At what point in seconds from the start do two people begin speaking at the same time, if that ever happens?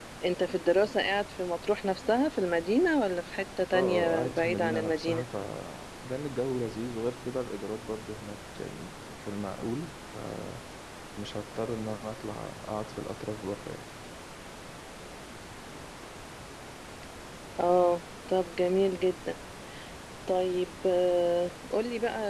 3.7 s

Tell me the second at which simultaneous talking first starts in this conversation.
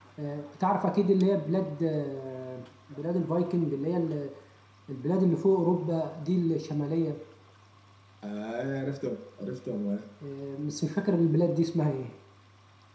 none

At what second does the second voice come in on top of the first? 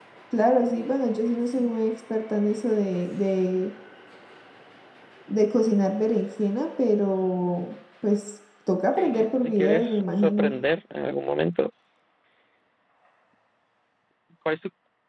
9.0 s

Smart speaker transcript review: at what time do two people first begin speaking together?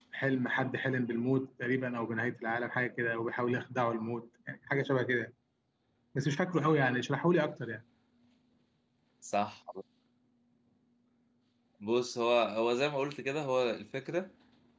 none

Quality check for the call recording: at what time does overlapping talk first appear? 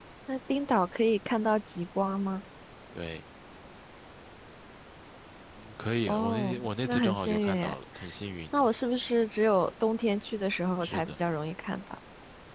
6.1 s

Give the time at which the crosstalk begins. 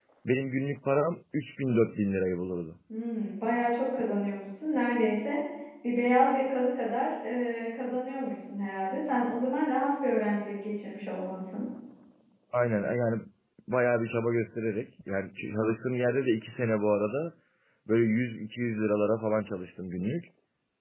none

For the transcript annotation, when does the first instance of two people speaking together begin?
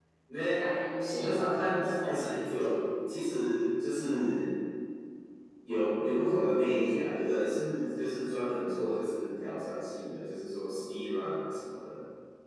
1.1 s

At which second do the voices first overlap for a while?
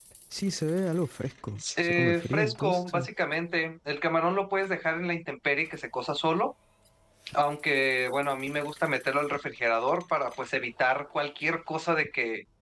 1.8 s

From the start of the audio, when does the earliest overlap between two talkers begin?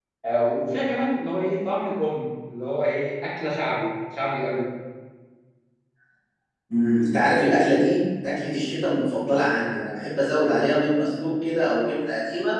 none

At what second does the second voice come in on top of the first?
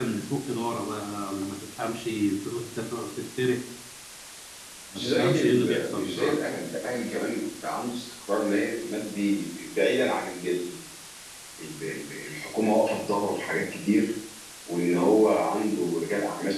5.0 s

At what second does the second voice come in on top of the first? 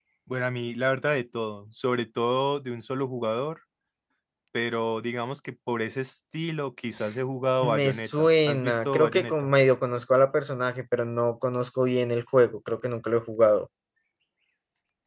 7.6 s

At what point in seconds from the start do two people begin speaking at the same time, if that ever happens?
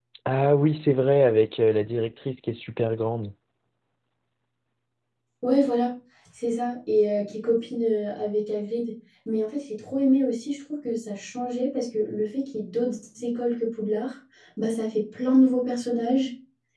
none

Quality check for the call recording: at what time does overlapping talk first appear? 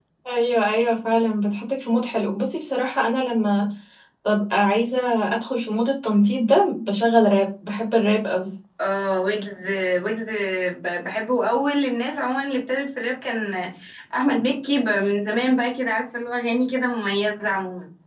none

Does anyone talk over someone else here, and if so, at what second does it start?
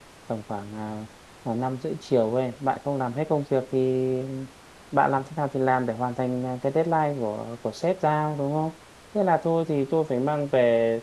none

